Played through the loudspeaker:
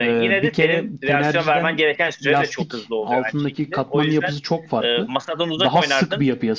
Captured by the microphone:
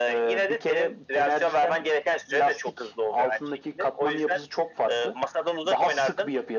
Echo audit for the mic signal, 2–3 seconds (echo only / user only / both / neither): echo only